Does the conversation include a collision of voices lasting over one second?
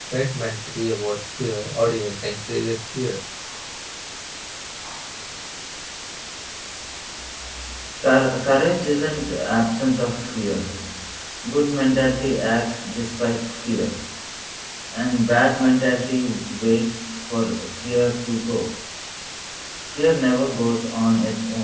No

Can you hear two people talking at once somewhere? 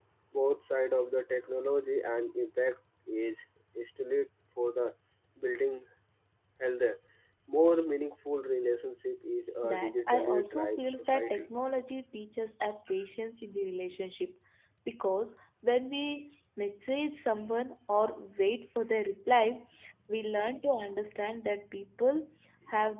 Yes, from 9.6 s

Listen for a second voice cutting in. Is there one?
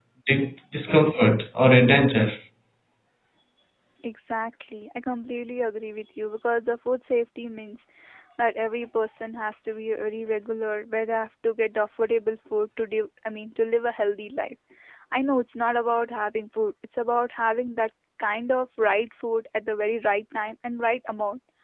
No

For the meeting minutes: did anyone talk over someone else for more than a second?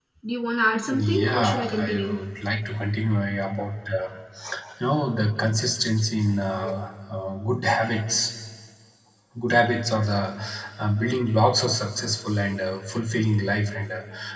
Yes, from 0.9 s

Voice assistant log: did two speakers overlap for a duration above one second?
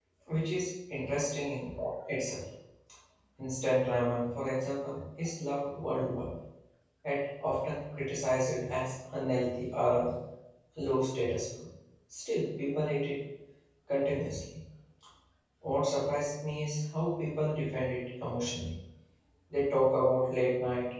No

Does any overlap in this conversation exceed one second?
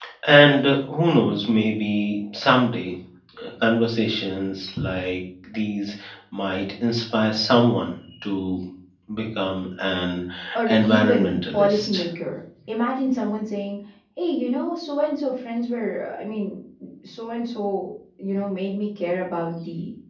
Yes, from 10.7 s

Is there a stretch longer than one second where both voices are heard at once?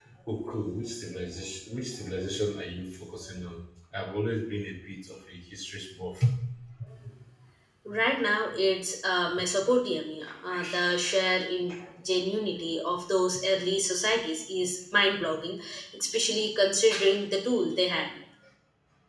No

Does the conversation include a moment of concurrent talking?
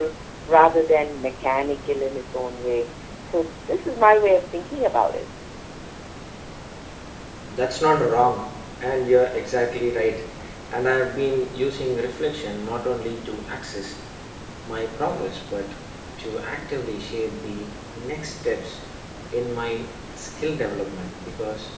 No

